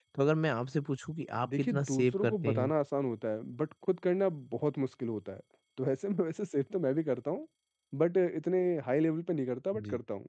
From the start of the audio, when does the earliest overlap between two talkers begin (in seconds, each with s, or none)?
1.4 s